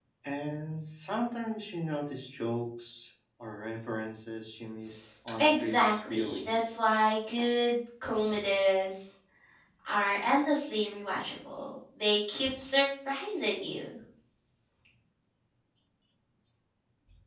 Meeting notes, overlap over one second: present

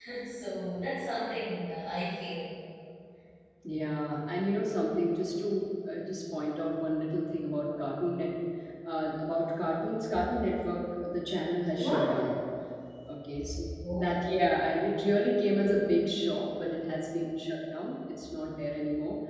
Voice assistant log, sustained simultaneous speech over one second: none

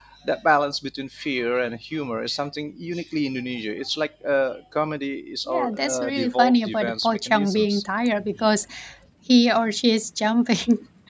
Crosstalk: present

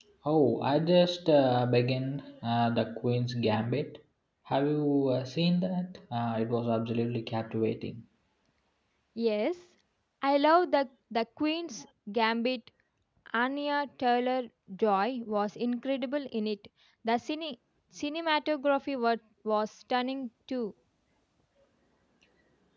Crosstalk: none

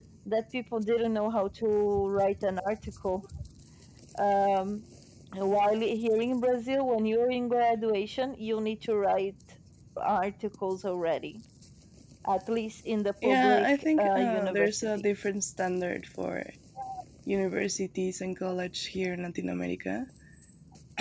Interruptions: present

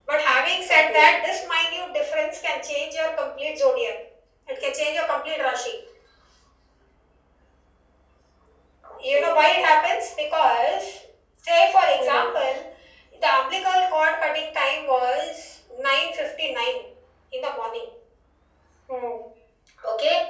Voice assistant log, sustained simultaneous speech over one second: none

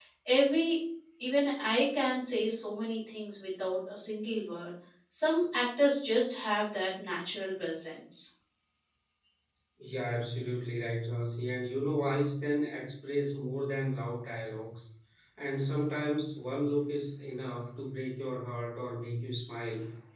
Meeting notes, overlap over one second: none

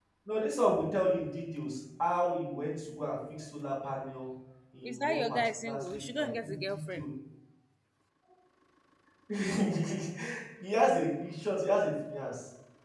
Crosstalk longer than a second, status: present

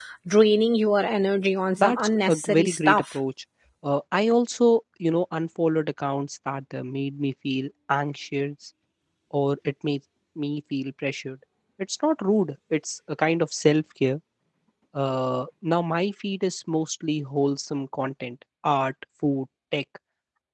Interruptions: present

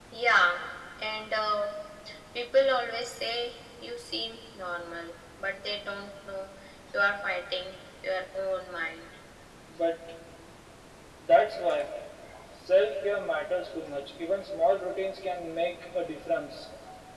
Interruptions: none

